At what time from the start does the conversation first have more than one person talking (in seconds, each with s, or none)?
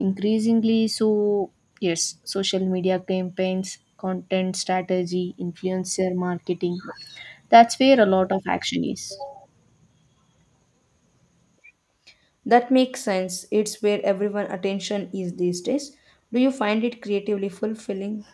none